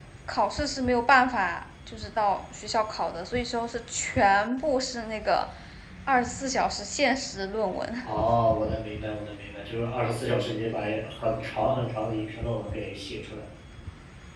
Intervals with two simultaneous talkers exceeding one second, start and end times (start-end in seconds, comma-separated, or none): none